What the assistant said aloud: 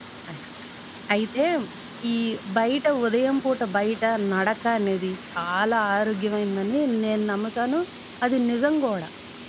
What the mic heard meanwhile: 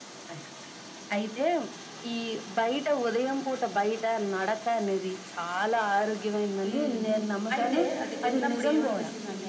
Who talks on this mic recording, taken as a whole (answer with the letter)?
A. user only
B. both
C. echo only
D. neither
B